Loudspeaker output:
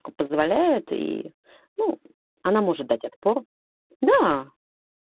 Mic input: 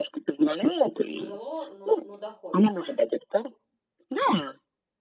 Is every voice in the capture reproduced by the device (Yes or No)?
No